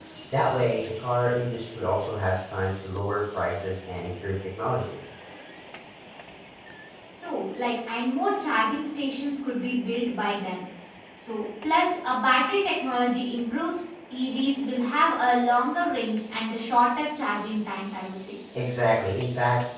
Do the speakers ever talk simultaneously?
No

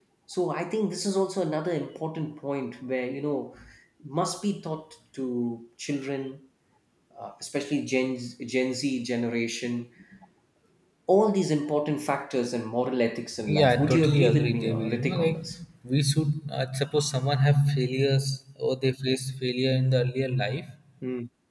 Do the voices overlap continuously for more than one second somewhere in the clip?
Yes, from 13.4 s

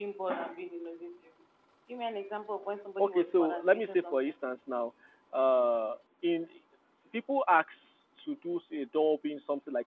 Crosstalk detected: Yes, from 3.0 s

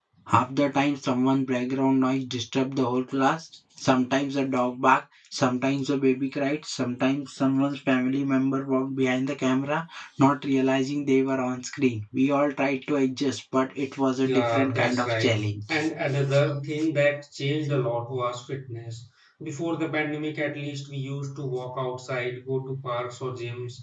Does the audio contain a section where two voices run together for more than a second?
Yes, from 14.2 s

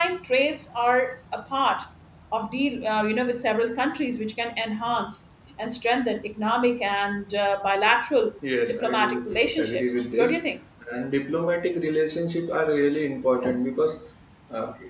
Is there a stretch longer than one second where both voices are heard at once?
Yes, from 8.7 s

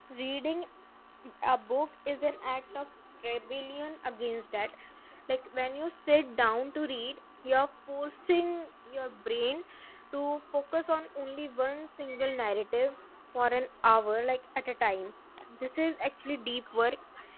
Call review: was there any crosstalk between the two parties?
No

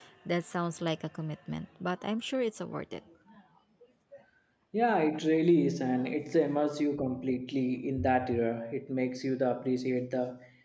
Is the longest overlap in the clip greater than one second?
No

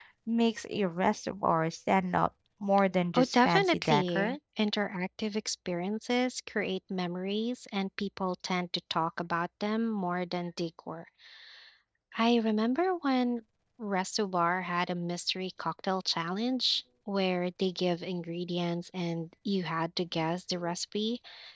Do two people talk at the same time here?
Yes, from 3.1 s

